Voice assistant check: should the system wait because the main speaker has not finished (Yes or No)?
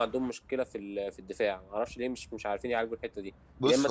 Yes